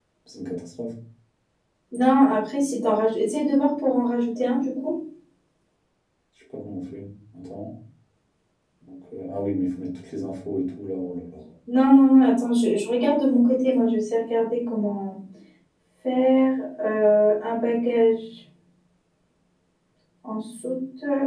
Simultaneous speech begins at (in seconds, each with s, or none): none